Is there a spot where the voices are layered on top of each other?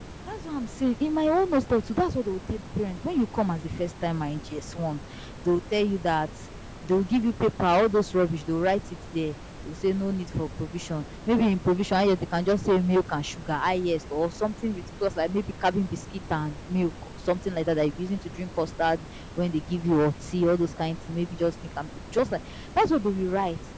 No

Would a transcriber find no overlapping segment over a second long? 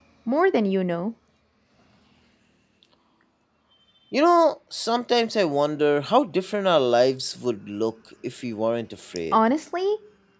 Yes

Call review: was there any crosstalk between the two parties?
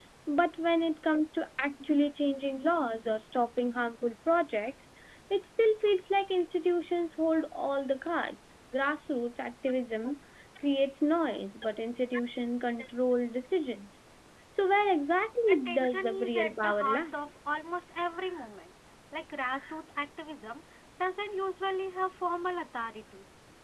Yes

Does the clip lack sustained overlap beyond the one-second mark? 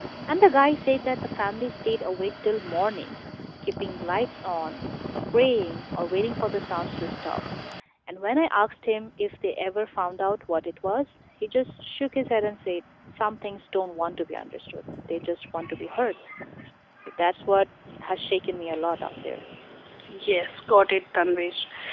Yes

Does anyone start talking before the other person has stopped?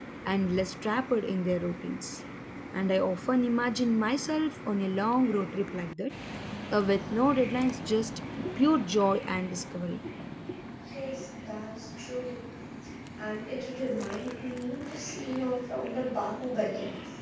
No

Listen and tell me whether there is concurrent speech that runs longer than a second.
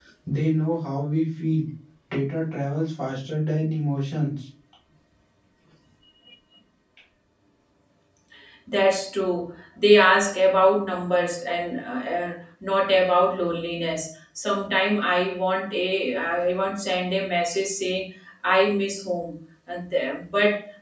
No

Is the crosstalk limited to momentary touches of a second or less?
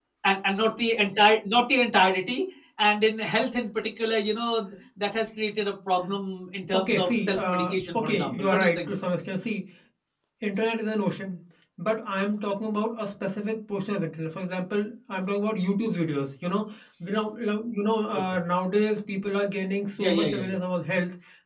No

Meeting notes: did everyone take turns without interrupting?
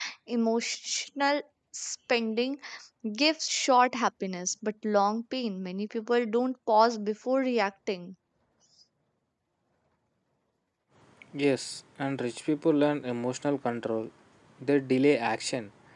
Yes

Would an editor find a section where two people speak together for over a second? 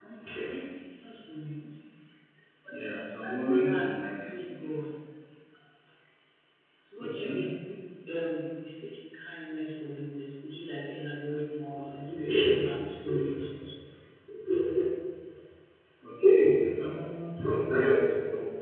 Yes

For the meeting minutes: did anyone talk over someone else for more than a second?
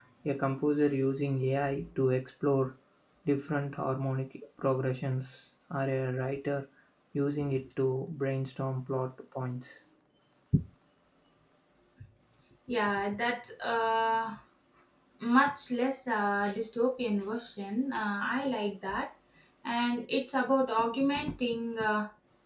No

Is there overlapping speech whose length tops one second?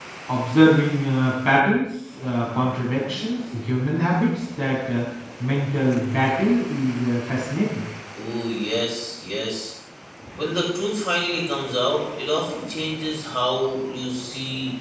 No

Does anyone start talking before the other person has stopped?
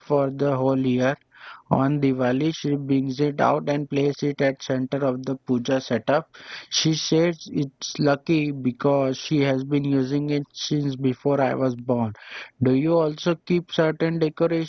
No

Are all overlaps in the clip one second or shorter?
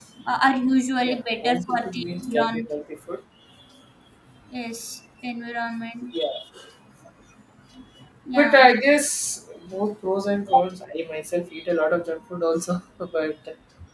No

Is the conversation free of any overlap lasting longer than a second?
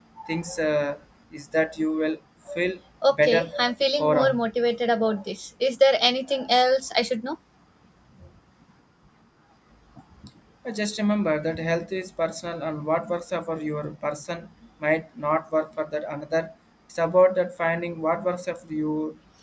Yes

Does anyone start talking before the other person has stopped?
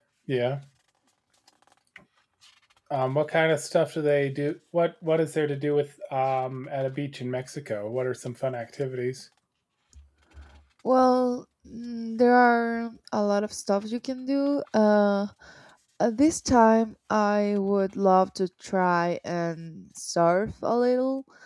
No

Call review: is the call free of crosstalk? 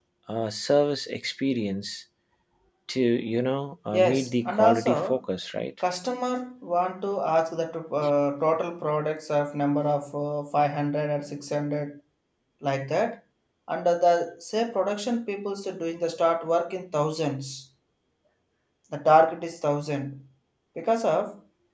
No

